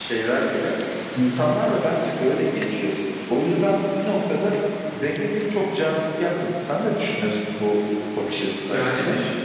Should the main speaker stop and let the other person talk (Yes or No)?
Yes